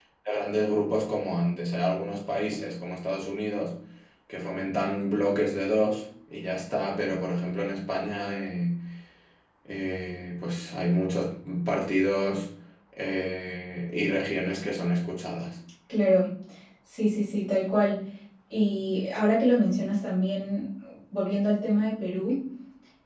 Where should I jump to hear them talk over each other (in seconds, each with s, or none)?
none